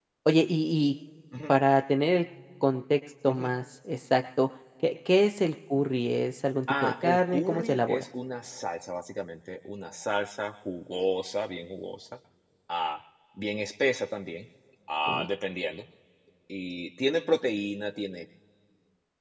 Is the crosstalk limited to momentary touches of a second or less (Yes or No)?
No